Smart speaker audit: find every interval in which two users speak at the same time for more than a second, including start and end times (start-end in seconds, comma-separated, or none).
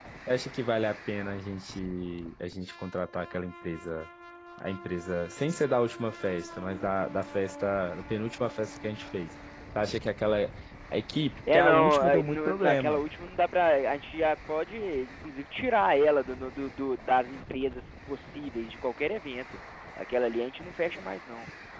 11.5-13.0